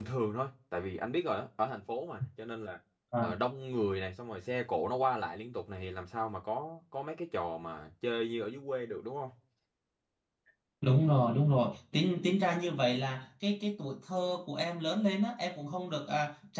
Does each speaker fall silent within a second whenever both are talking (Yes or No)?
Yes